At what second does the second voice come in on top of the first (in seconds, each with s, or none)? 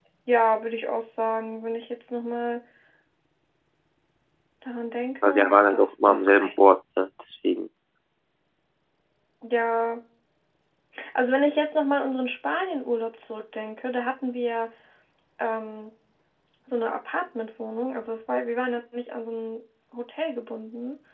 5.2 s